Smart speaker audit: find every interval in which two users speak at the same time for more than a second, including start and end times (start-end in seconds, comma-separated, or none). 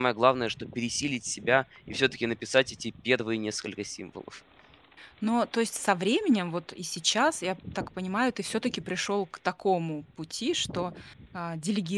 none